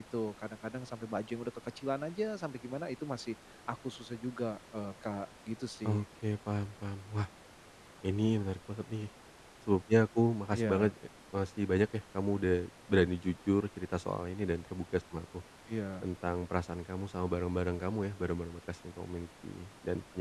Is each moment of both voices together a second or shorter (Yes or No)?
Yes